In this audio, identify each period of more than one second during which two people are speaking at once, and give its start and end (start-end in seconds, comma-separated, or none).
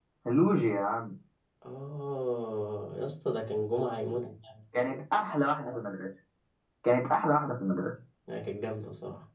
none